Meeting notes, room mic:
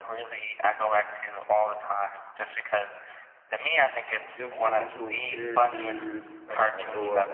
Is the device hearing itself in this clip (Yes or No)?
Yes